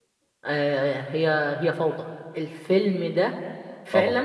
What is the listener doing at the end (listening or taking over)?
listening